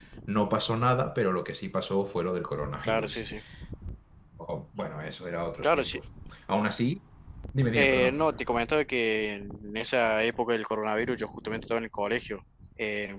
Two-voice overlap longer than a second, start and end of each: none

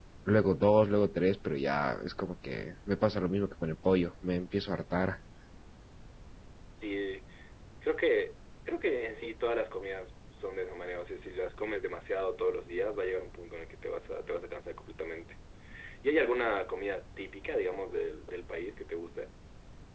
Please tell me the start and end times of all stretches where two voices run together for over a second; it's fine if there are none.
none

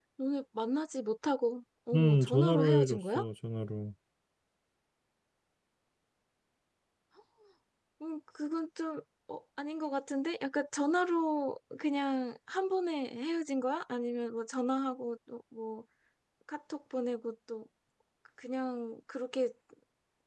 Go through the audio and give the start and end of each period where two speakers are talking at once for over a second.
1.9-3.2

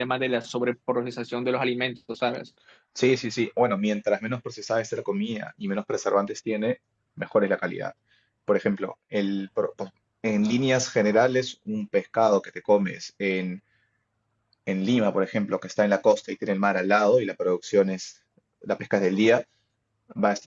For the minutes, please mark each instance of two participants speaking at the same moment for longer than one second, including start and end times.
none

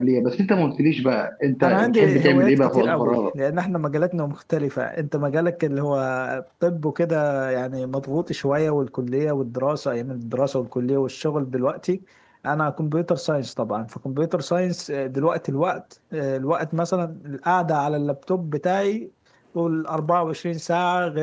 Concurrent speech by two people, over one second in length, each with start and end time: 1.6-3.2

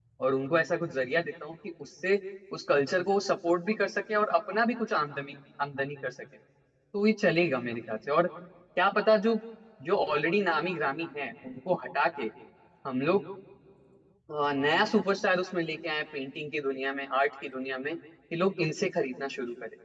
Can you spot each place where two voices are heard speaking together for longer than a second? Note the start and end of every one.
none

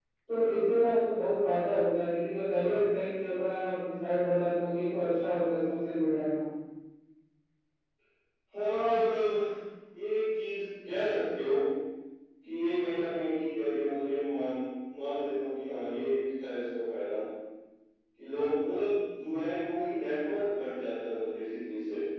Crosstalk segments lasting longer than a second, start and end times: none

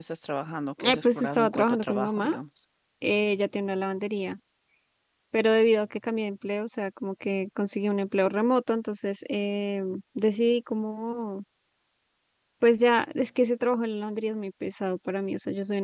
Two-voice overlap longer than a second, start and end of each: 0.8-2.3

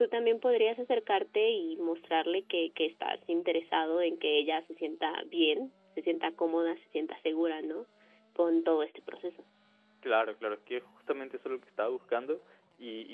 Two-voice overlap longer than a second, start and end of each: none

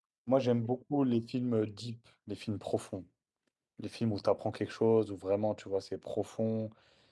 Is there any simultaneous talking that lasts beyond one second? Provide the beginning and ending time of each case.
none

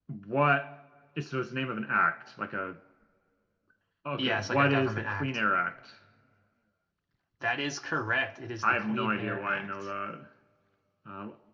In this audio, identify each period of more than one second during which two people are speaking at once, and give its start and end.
4.2-5.4, 8.6-9.9

